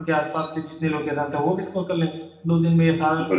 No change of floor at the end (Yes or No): Yes